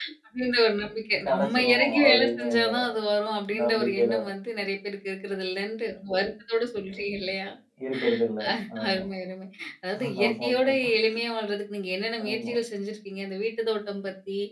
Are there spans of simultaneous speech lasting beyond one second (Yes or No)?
Yes